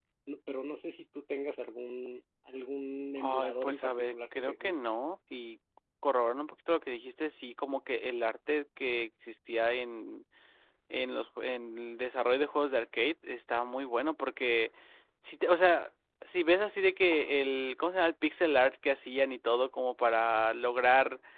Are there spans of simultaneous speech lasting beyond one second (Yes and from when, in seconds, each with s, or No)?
Yes, from 3.2 s